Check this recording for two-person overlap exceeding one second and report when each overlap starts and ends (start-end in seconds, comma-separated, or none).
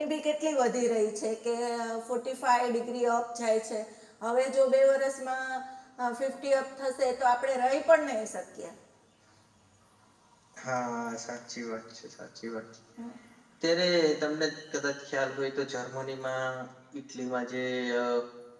none